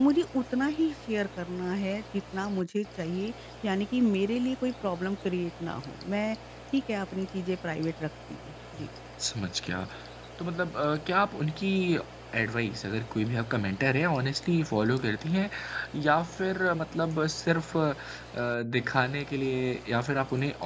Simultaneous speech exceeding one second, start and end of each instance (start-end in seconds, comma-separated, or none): none